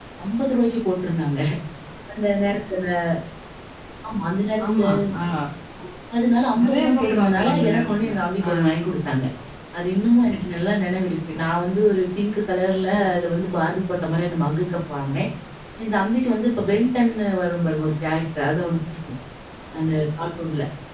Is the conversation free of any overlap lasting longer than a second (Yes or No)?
No